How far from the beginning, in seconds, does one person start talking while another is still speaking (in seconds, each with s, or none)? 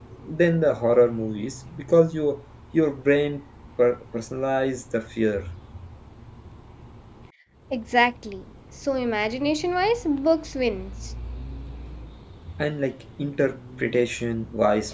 none